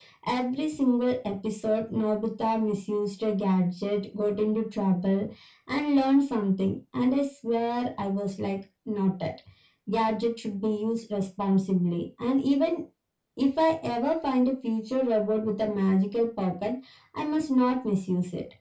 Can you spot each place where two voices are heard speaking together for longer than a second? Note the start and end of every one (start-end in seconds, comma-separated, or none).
none